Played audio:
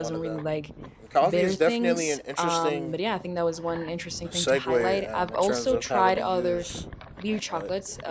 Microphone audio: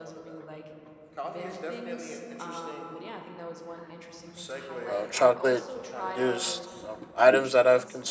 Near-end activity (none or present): present